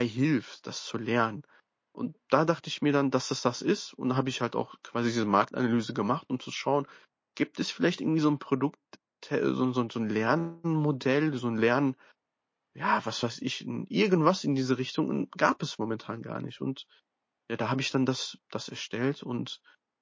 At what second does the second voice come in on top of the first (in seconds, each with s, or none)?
none